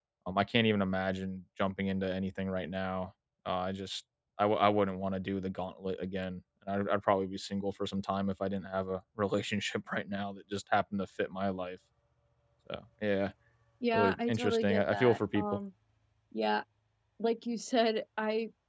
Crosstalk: present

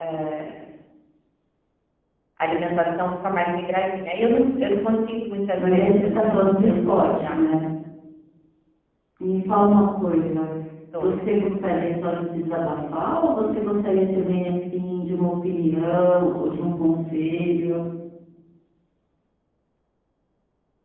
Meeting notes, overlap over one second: present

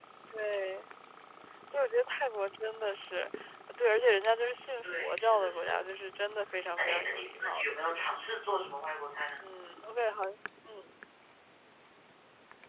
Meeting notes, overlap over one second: present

